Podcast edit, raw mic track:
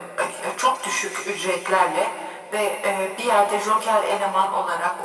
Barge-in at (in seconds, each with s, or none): none